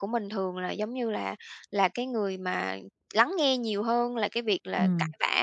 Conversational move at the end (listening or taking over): listening